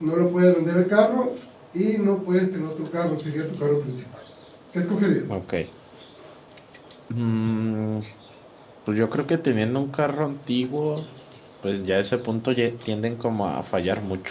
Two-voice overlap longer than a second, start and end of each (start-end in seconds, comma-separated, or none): none